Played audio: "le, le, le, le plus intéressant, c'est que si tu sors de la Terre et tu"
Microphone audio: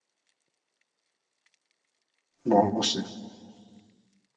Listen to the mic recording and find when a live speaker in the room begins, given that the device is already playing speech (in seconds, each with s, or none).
2.4 s